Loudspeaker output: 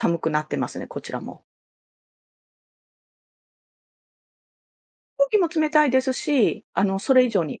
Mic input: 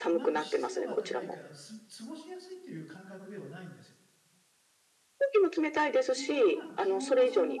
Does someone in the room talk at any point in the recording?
Yes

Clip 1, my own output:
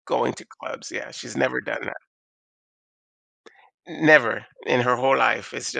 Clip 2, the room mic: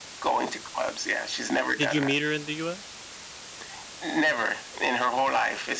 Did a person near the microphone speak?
Yes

